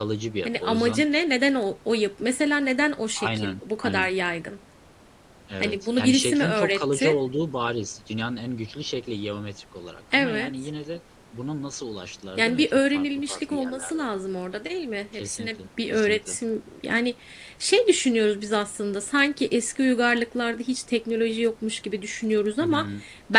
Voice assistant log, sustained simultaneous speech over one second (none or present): present